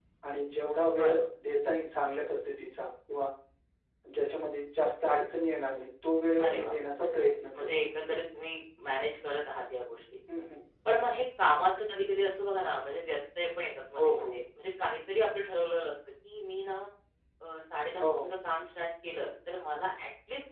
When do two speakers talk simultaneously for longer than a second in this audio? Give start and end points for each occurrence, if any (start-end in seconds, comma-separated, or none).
6.4-7.7